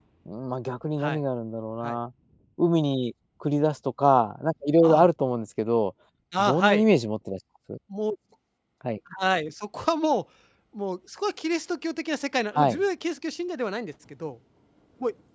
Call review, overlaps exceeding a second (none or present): none